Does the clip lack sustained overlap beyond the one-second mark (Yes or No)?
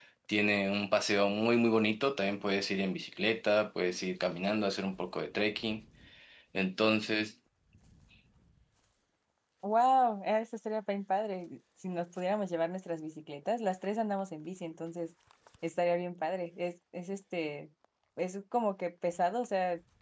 Yes